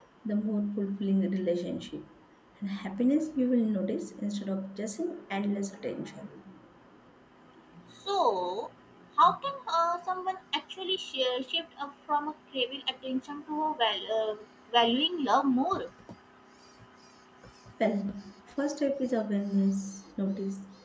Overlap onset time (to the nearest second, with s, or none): none